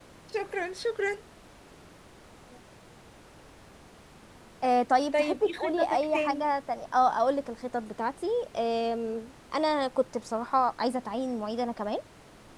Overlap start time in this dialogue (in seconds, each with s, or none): 5.1 s